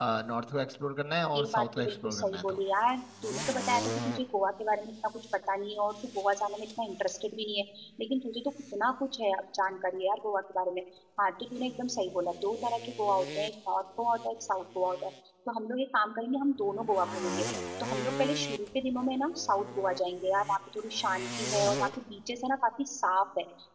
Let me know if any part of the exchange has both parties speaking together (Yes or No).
Yes